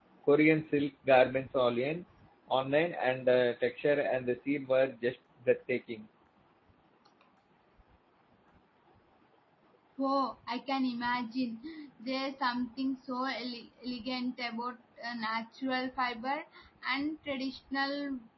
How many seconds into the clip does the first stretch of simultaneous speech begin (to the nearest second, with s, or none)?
none